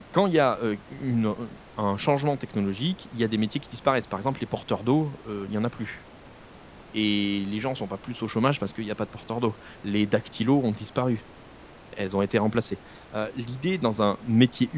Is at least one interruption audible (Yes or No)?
No